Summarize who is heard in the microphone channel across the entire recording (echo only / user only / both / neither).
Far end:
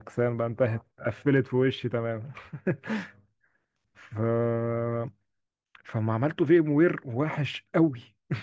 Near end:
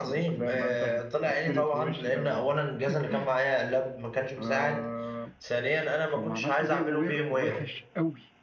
both